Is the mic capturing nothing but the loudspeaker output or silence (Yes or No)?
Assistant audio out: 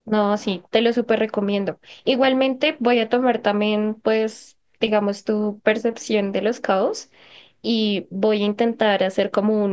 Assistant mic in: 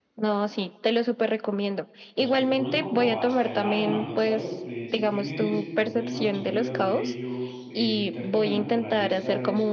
No